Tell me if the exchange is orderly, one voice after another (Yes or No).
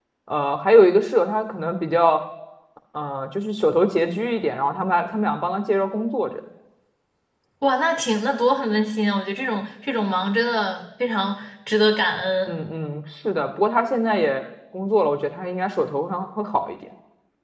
Yes